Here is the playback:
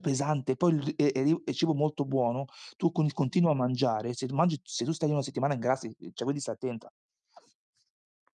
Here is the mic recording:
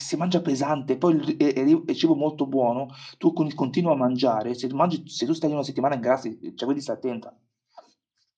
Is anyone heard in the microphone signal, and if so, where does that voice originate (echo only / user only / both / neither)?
echo only